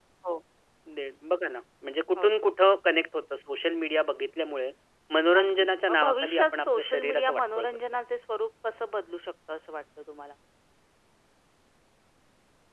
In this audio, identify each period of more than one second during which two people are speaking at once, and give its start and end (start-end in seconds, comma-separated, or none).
5.4-7.8